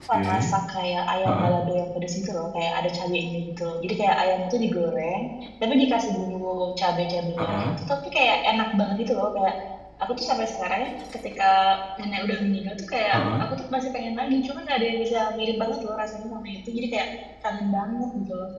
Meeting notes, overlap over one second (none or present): none